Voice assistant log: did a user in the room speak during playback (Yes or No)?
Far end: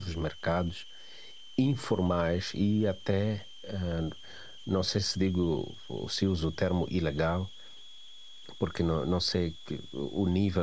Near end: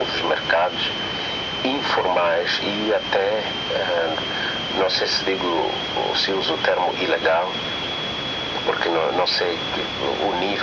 No